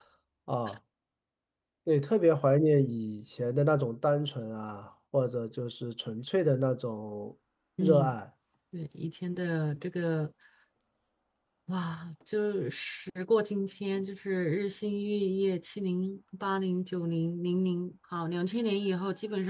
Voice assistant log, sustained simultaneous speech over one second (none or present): none